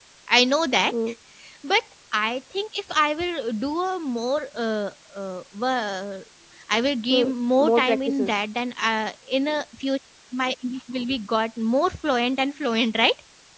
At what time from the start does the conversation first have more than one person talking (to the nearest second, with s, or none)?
7 s